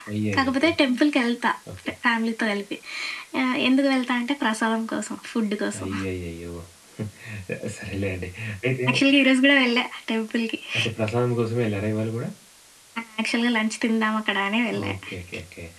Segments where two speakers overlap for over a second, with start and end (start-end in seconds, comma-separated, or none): none